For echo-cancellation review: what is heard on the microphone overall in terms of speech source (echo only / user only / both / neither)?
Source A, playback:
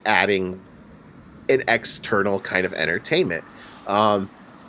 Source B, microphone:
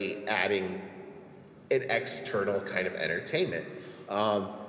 echo only